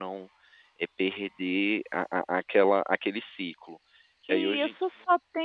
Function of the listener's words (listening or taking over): taking over